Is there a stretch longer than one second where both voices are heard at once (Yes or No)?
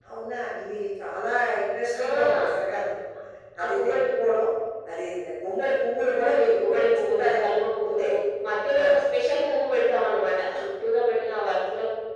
Yes